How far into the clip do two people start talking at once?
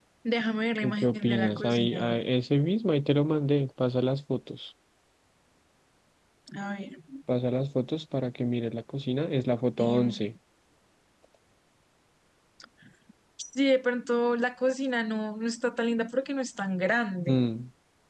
0.8 s

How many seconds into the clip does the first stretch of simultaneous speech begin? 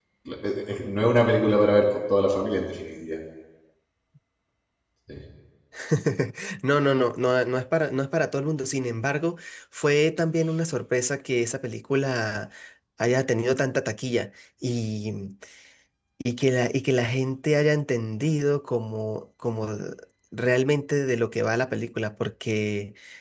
none

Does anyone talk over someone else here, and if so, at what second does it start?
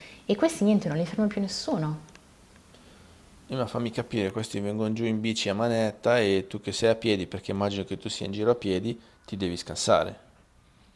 none

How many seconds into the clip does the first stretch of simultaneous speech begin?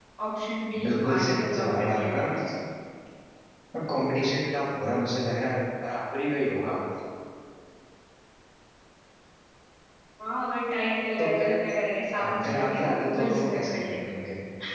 0.8 s

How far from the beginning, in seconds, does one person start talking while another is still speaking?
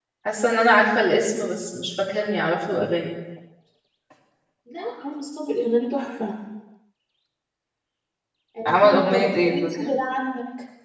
8.7 s

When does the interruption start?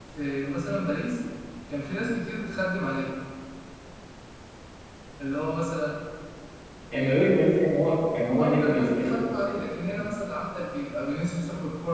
8.4 s

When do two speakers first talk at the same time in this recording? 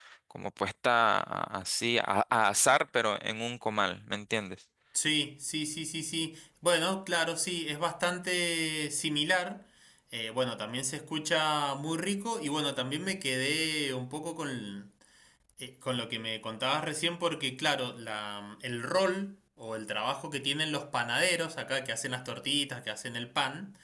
none

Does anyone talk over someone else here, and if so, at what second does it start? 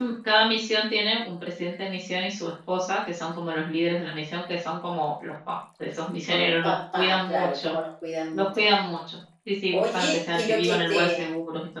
6.3 s

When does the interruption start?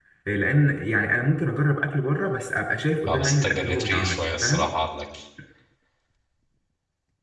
3.1 s

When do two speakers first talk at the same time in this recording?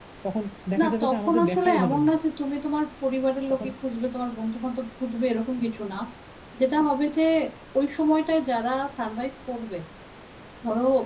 0.8 s

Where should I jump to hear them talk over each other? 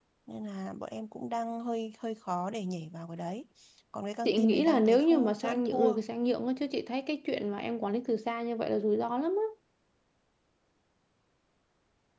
4.2 s

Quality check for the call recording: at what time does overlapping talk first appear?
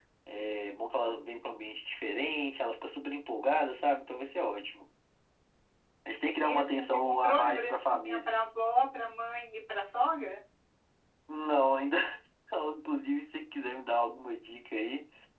6.4 s

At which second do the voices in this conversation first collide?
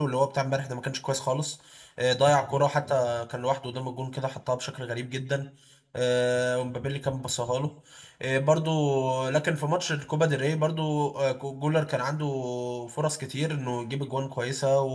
none

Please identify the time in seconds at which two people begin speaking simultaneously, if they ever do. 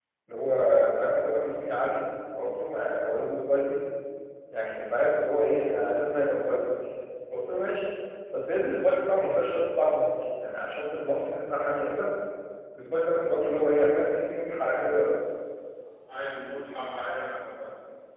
none

